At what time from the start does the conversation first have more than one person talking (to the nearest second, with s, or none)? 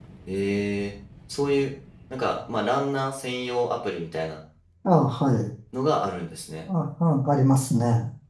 none